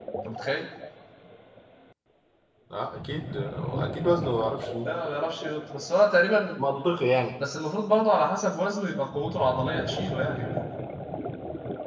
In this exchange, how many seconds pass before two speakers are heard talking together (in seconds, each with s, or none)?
none